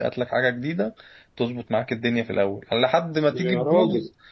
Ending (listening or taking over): listening